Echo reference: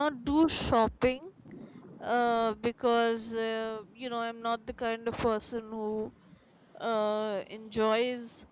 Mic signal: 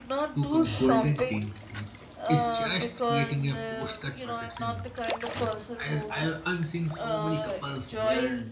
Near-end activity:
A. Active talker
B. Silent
A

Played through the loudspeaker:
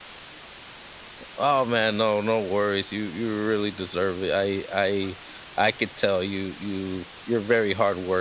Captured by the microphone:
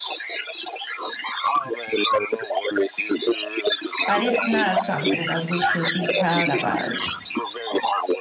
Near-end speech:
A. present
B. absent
A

